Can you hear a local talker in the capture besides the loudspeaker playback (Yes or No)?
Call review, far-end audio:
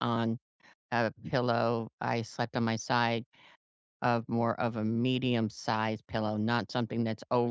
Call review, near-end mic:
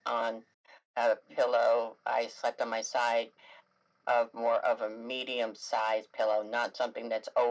No